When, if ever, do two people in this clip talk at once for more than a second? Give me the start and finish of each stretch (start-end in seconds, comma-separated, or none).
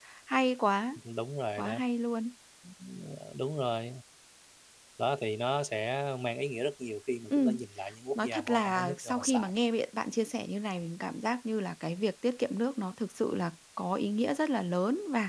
8.2-9.5